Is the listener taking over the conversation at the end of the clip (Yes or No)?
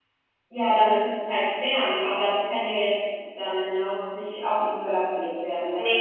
Yes